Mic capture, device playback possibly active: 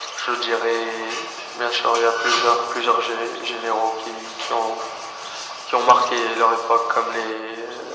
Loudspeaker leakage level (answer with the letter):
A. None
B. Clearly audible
B